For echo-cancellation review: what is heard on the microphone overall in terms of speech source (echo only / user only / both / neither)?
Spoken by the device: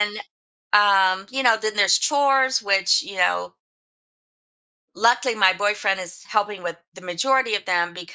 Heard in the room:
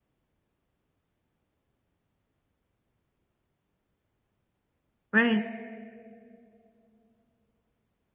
user only